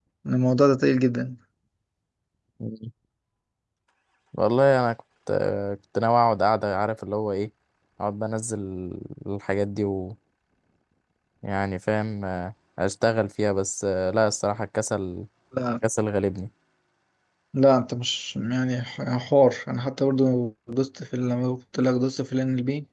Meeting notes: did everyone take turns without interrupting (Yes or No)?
Yes